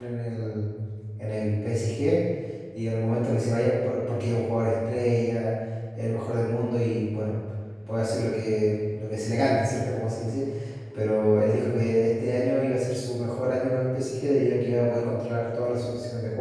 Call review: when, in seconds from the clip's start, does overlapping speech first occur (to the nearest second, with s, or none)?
none